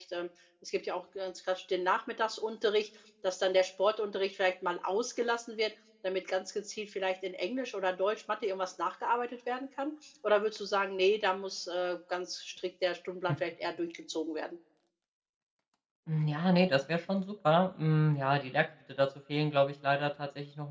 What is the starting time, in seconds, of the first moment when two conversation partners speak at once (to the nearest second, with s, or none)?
none